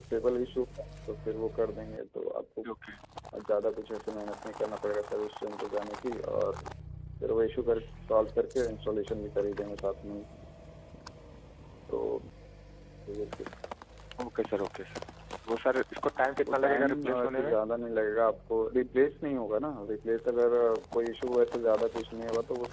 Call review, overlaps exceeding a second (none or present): present